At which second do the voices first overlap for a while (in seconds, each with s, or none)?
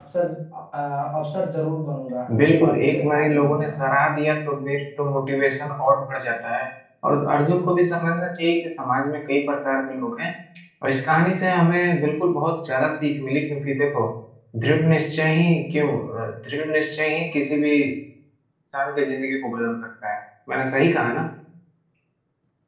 2.3 s